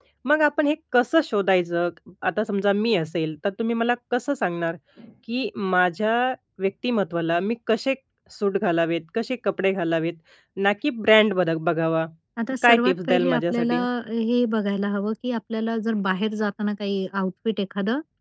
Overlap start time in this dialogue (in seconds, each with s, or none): 12.6 s